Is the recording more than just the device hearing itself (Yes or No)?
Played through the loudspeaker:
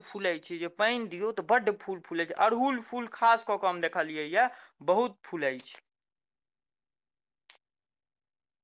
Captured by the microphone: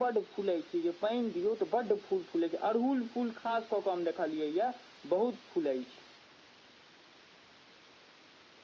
No